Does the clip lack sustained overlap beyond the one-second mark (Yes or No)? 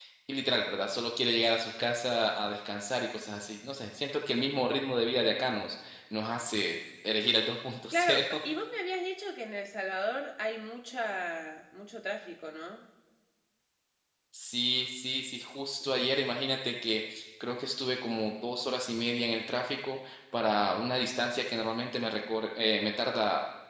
Yes